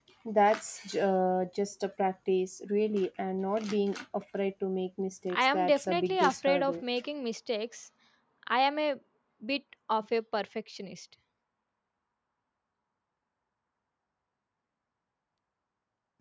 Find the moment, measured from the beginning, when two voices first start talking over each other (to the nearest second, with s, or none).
5 s